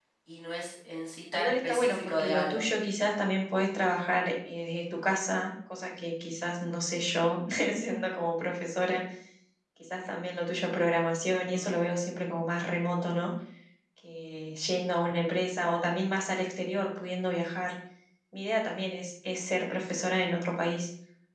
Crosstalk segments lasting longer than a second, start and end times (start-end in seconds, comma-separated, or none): 1.3-2.6